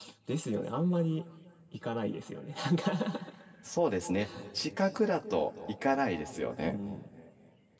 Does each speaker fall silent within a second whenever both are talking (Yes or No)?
Yes